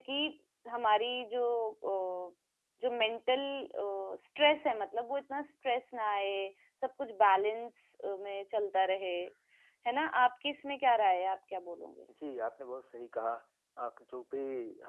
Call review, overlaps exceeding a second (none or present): none